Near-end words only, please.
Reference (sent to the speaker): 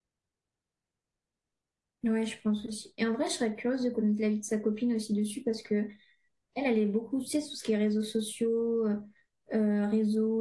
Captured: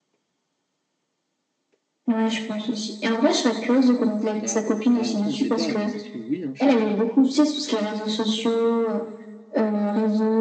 Bah, euh, ouais, après, on sait pas, mais ça se trouve, oui, hein, je sais pas.

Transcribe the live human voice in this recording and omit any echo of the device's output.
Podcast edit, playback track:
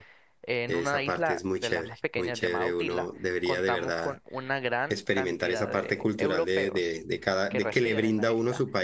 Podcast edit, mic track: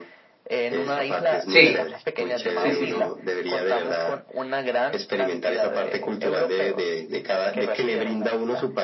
Sí, sí, sí, sí.

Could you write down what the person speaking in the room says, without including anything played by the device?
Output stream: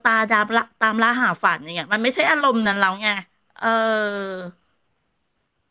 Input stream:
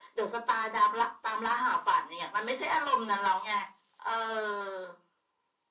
none

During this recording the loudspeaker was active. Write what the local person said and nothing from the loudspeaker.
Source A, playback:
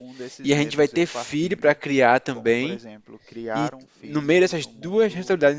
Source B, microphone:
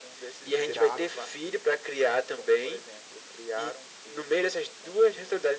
e grato

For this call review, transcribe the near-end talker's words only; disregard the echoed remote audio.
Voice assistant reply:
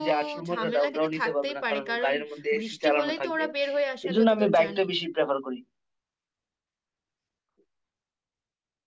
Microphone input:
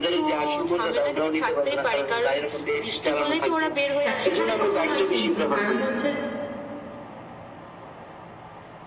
চারটেখানে কথা নয় কিন্তু কারণ হচ্ছে

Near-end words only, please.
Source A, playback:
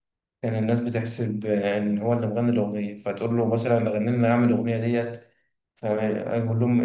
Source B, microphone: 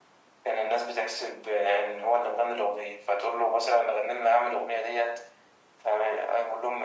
none

